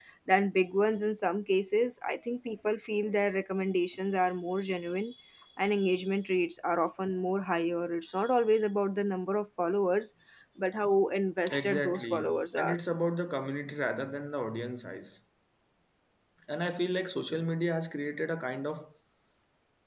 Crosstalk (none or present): present